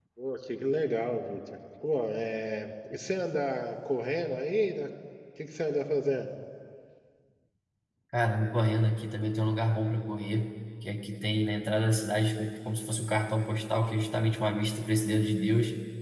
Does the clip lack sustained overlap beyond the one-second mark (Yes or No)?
Yes